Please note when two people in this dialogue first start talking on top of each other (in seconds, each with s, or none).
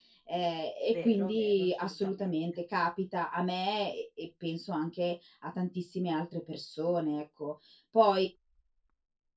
0.9 s